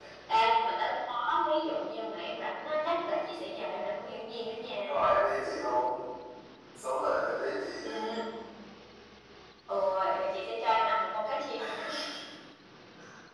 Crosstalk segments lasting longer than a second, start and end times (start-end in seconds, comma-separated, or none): none